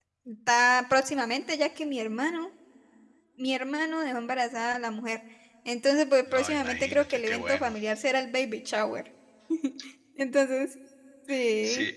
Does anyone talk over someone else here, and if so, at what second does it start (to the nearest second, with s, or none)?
6 s